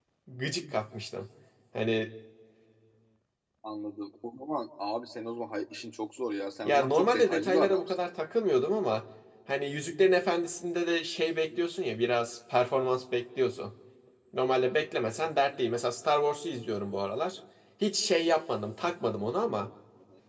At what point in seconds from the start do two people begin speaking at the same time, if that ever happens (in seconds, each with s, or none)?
6.6 s